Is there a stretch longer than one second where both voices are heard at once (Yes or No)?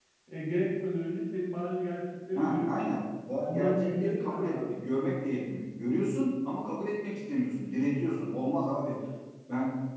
Yes